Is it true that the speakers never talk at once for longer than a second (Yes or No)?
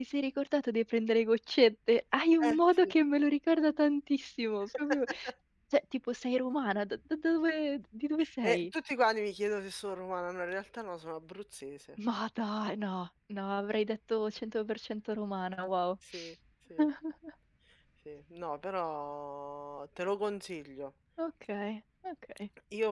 Yes